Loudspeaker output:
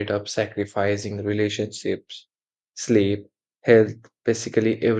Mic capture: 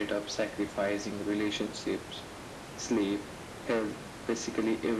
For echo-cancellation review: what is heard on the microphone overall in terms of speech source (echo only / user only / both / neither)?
echo only